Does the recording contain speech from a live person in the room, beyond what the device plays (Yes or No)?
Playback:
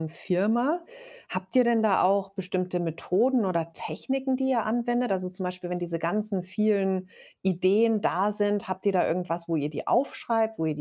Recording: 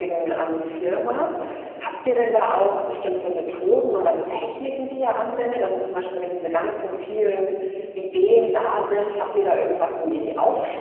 No